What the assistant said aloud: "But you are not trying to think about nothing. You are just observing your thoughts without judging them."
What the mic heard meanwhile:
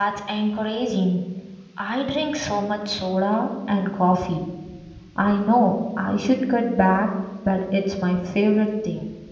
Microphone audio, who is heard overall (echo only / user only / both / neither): user only